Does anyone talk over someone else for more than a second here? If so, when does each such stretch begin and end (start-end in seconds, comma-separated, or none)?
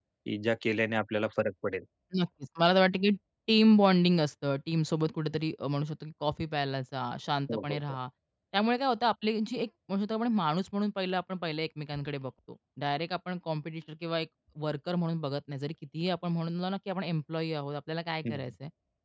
none